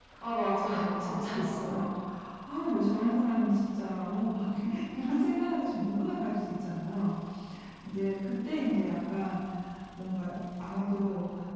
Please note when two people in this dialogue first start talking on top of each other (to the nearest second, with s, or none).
1 s